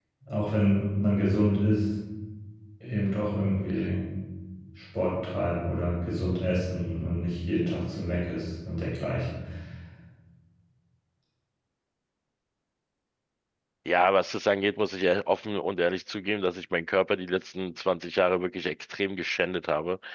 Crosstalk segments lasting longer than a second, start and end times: none

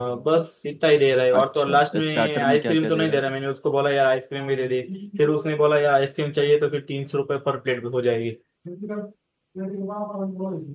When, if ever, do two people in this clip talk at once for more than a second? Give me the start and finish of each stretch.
1.4-3.3

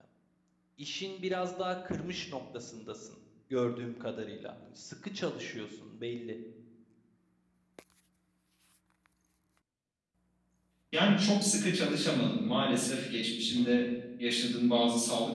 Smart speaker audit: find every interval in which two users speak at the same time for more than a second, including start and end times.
none

